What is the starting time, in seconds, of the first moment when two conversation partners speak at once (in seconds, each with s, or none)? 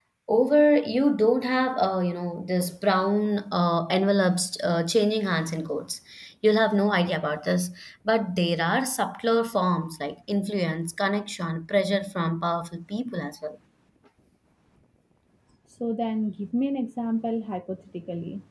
none